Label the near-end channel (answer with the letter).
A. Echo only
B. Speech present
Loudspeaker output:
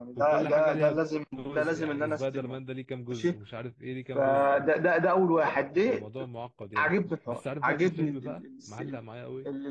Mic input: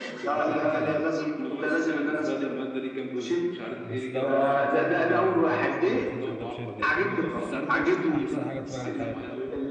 B